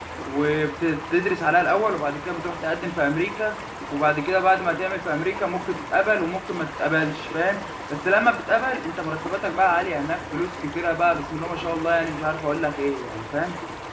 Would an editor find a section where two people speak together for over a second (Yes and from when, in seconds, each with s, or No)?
No